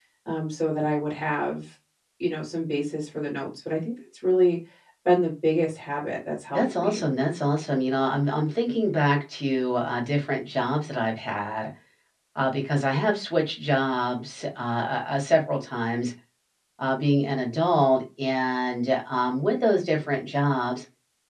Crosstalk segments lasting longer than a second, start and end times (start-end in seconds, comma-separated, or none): none